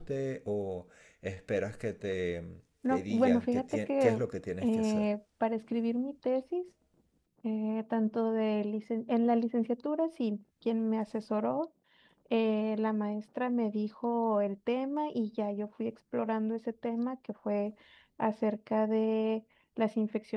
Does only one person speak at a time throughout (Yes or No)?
No